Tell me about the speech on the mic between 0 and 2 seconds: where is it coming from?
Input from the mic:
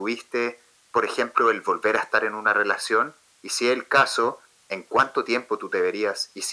echo only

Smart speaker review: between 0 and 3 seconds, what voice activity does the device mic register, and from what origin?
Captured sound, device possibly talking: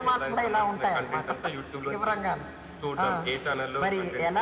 echo only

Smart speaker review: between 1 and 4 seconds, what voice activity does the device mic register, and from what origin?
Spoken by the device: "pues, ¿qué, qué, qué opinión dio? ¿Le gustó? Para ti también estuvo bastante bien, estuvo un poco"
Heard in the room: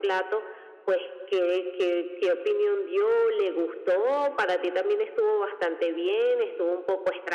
echo only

